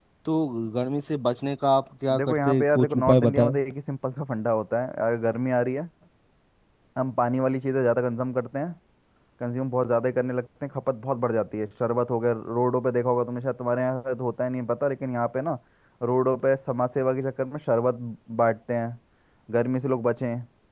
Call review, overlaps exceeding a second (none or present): present